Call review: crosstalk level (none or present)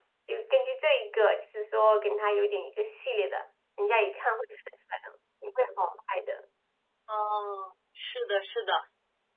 none